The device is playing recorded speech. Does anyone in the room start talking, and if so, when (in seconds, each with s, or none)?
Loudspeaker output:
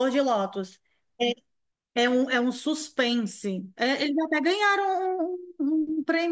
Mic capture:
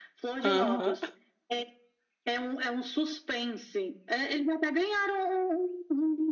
0.4 s